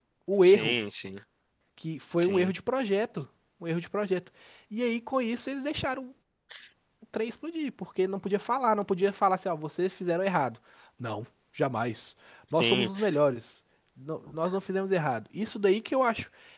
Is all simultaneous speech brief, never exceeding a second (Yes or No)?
Yes